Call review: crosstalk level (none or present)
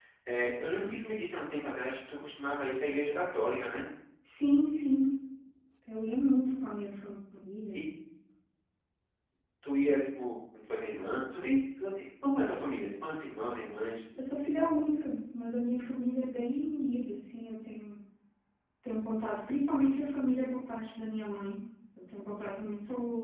none